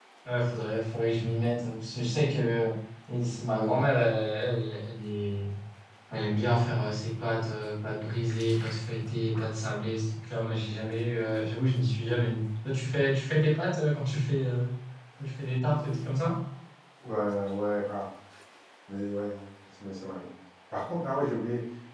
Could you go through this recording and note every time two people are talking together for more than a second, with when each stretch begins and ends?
none

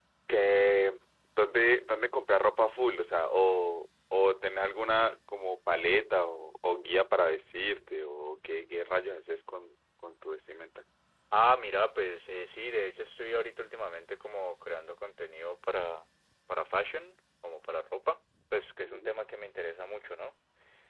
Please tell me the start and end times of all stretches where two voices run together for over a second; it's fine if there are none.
none

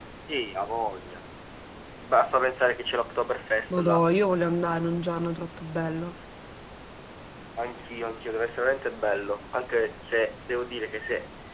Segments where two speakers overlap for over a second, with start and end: none

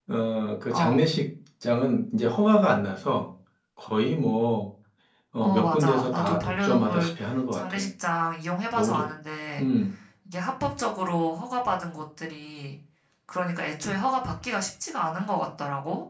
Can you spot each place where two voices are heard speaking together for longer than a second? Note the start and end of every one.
5.4-7.1

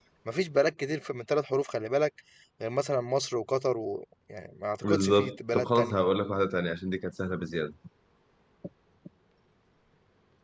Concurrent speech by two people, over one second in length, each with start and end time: 4.8-6.0

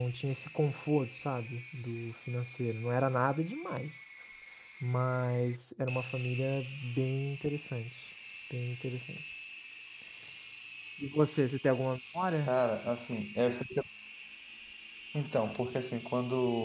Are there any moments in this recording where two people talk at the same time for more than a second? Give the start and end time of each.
none

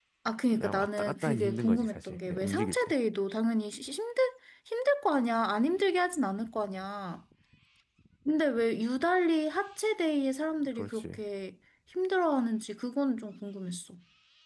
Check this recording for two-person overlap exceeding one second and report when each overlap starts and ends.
0.5-2.9

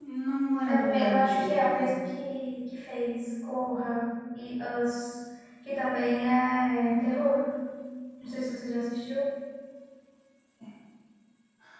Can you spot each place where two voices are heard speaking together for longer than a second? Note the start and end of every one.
0.6-1.8

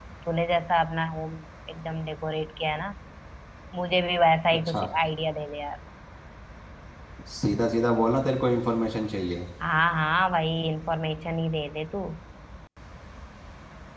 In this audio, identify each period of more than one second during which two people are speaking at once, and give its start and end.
none

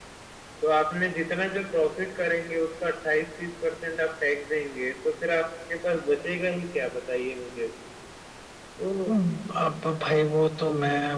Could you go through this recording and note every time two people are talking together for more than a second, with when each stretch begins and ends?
none

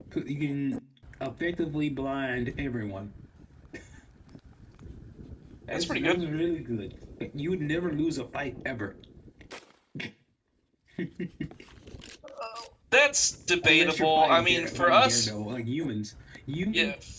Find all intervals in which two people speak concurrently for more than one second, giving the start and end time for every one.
13.6-15.3

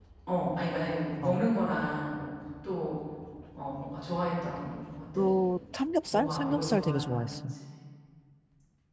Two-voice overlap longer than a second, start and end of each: 6.1-7.5

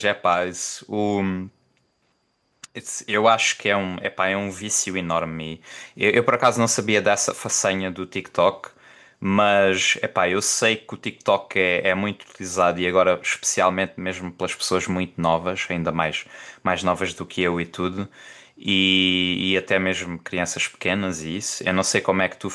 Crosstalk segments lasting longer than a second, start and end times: none

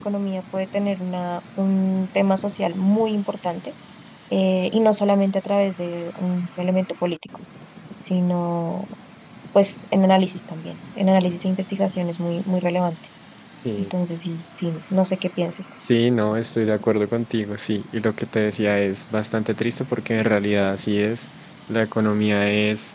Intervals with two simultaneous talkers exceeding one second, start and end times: none

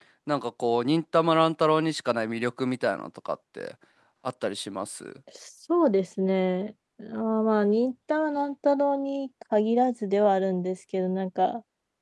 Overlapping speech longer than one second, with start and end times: none

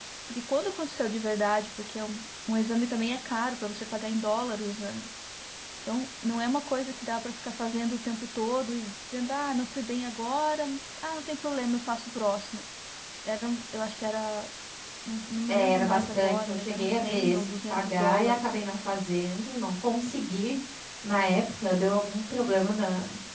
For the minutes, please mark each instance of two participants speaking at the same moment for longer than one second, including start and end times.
15.5-18.5

